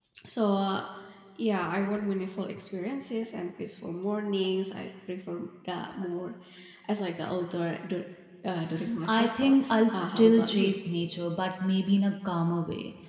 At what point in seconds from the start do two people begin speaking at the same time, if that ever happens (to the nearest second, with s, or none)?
9 s